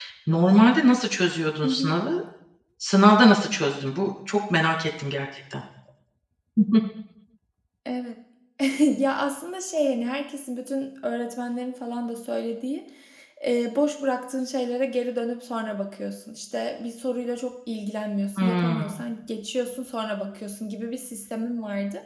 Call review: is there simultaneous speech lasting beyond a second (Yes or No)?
No